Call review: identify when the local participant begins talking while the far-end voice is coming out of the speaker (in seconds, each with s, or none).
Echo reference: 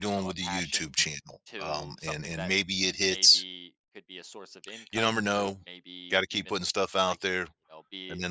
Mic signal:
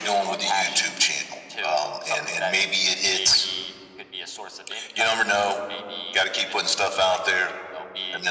none